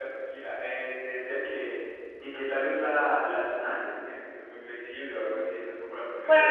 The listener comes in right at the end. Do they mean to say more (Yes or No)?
Yes